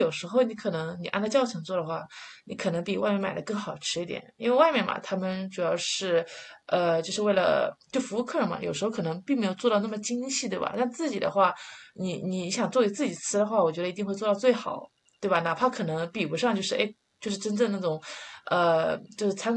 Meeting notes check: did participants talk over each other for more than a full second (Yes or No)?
No